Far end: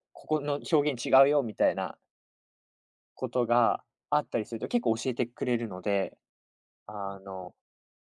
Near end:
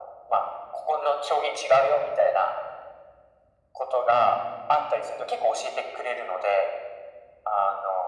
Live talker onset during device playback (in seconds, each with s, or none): none